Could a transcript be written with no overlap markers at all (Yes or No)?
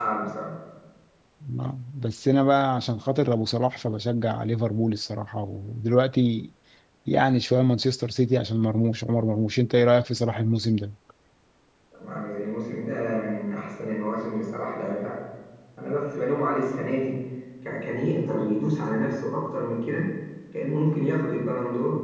Yes